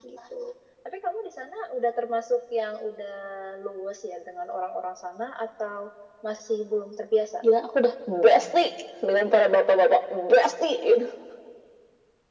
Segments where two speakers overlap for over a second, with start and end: none

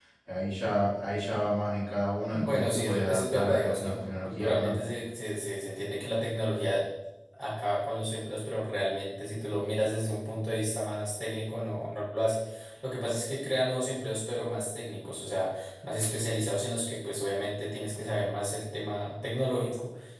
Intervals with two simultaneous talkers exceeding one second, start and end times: 2.3-4.7

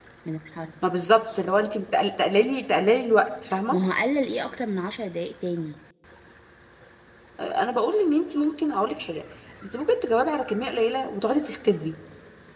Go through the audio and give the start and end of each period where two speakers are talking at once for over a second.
none

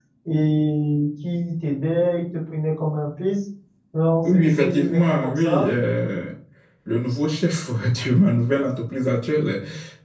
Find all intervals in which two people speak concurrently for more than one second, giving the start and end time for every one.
4.2-5.7

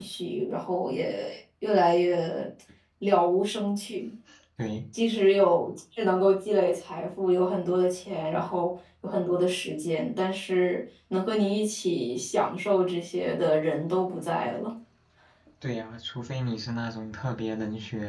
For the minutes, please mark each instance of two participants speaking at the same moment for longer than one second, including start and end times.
none

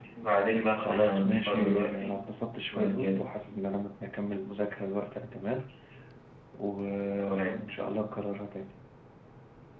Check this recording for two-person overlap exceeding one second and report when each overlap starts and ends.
0.8-2.2

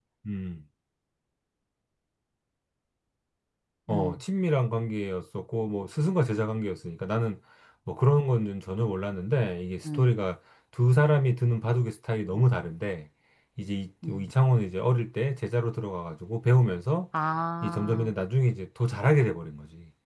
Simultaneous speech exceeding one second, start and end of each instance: none

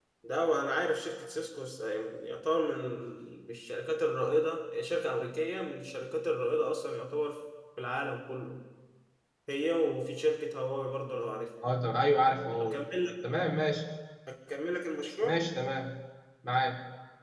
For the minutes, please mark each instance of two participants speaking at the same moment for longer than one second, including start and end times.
none

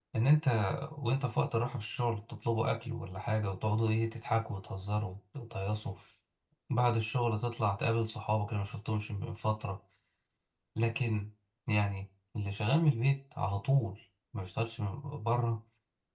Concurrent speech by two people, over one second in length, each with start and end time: none

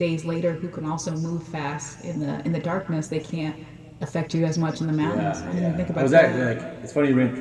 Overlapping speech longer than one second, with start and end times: 5.0-6.4

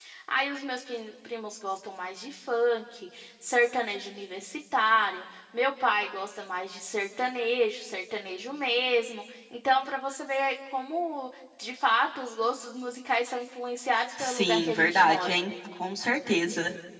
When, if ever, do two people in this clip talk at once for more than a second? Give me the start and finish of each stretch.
14.2-15.4

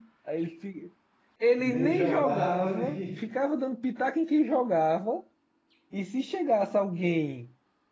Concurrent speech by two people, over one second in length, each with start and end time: 1.6-3.0

